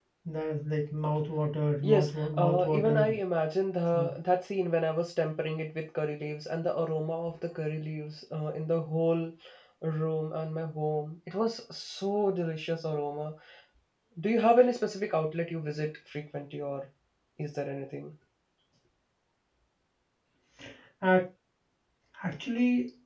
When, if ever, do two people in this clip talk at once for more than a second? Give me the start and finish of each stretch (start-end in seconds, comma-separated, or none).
1.8-3.1